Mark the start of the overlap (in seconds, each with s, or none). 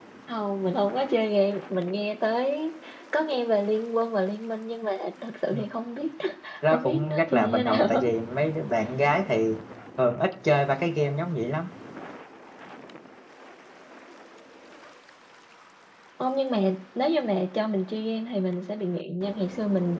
6.7 s